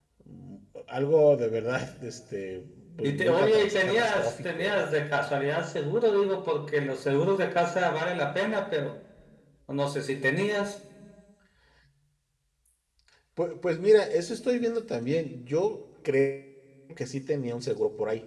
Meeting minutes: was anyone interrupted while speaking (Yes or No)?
Yes